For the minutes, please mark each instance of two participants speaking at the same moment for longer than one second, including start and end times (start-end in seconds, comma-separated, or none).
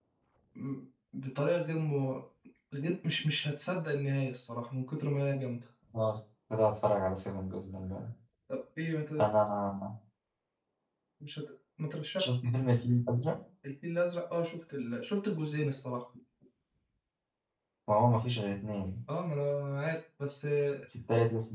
none